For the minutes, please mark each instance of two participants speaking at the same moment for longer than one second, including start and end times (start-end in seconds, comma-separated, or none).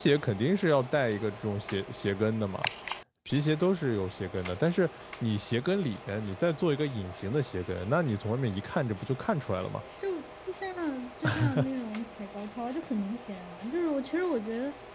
none